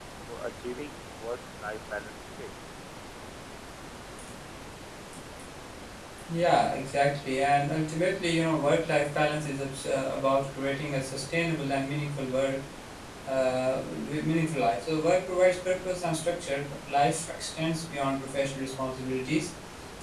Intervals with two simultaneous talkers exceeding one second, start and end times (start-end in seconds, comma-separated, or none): none